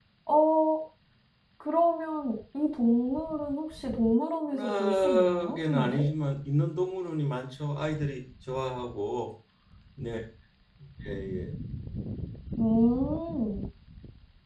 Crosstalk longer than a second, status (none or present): present